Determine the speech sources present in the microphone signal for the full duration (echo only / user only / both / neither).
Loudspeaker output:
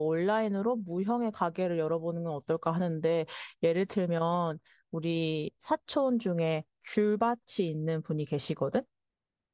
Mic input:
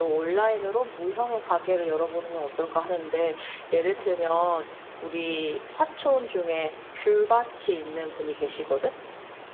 echo only